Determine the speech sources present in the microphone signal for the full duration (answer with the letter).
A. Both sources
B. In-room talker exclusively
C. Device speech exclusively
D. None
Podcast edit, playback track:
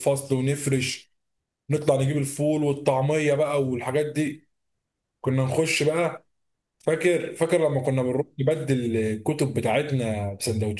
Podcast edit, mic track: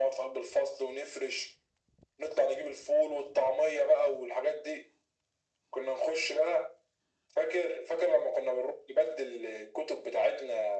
C